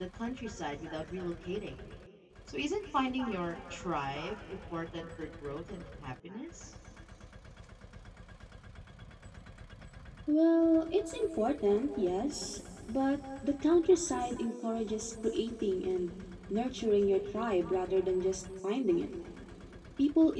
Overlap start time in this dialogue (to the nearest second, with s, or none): none